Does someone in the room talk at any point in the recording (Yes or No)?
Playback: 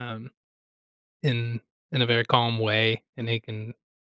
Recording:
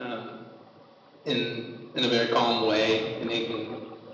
No